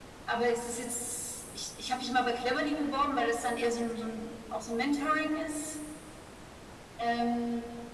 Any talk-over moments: No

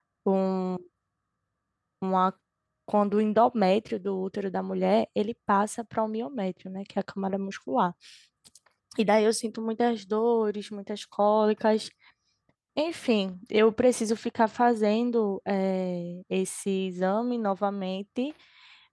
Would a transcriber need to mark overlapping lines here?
No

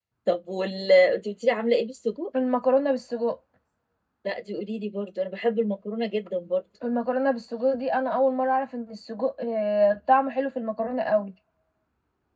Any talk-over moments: No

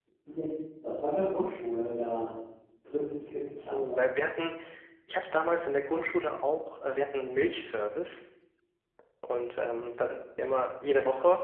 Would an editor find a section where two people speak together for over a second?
No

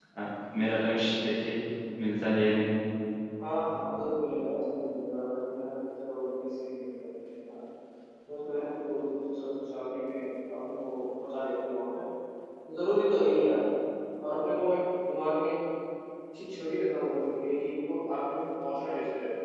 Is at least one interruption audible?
No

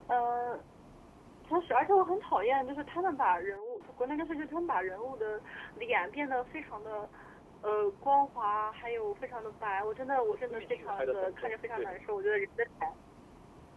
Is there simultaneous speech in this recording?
Yes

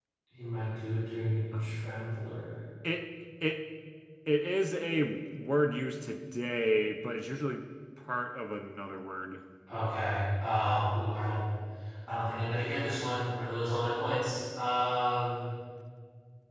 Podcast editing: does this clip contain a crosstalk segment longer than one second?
No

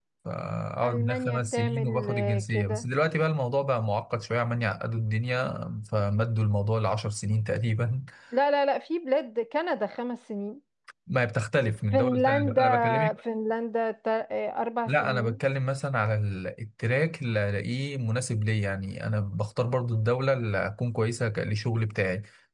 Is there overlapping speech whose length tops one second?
Yes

